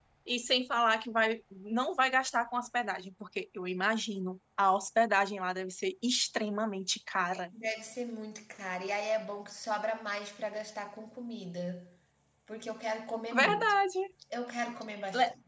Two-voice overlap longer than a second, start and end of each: none

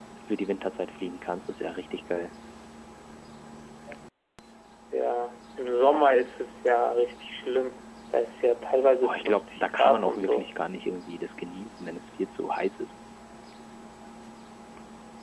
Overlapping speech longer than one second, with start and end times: 9.0-10.5

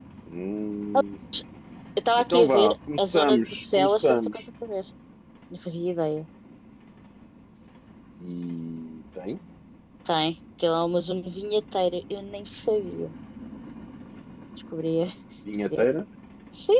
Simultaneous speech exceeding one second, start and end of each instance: 2.3-4.4

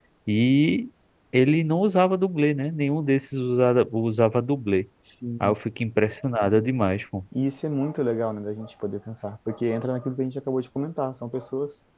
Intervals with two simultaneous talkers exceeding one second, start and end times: none

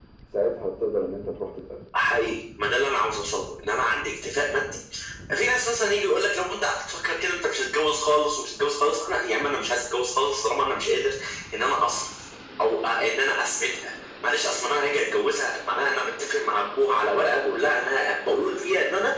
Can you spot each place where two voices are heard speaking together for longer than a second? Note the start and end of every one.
none

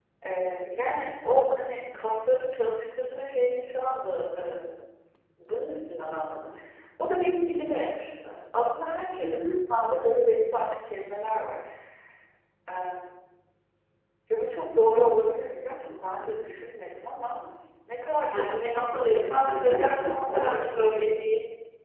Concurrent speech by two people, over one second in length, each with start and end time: 19.2-20.8

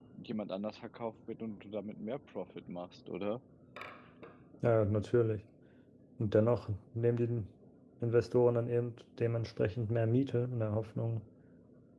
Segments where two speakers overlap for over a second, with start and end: none

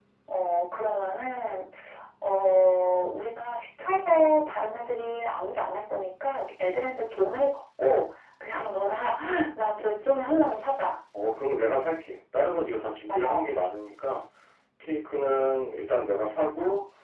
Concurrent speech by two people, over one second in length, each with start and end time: none

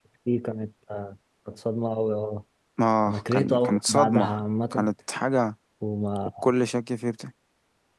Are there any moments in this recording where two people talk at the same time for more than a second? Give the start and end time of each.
3.1-4.3

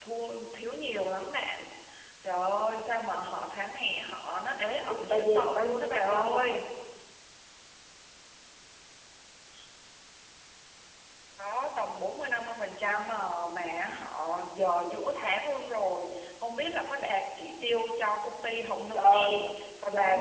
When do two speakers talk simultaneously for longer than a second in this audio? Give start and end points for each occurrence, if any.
4.8-6.6

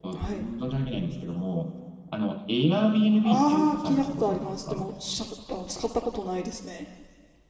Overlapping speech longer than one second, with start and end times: 3.2-4.8

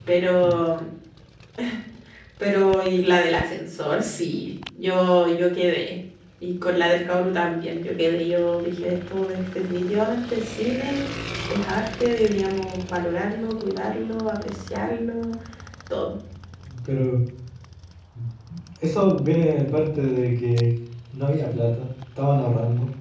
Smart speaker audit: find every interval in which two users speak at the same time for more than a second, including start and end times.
none

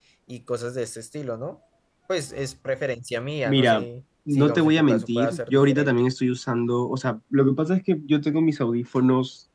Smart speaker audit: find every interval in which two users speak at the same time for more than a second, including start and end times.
4.3-5.9

